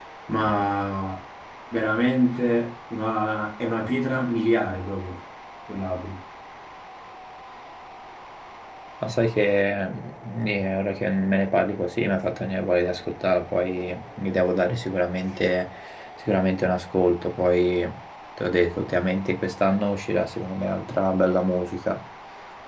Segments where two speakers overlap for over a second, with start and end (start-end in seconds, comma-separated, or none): none